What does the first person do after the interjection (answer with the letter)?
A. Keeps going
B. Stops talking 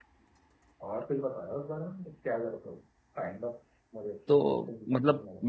B